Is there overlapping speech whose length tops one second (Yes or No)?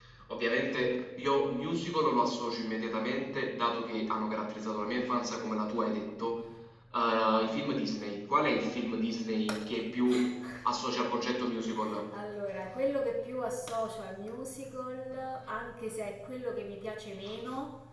No